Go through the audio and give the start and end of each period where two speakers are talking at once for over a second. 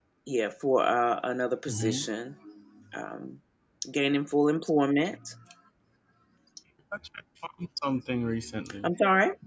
none

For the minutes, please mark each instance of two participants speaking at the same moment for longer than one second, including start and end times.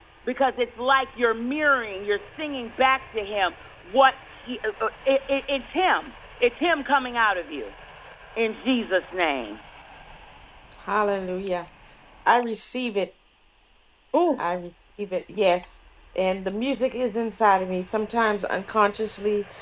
none

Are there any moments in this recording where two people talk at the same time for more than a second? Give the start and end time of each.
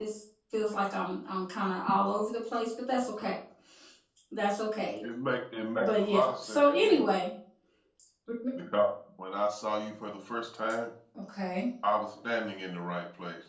5.8-7.0

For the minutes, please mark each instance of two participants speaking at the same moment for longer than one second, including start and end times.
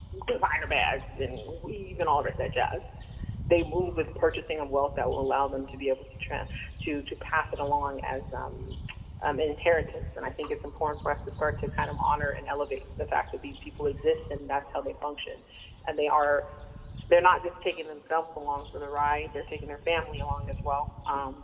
none

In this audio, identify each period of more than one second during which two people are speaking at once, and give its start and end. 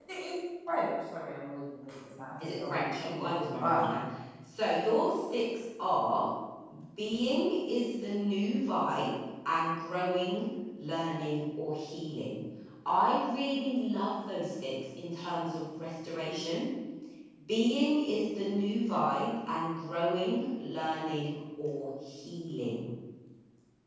2.4-3.8

